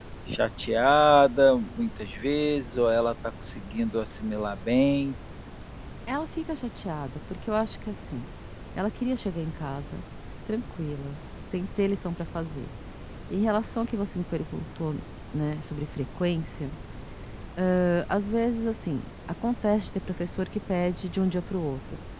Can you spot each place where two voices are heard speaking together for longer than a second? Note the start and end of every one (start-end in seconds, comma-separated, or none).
none